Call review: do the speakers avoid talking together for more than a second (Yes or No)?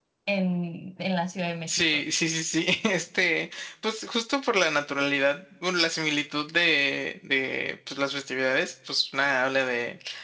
Yes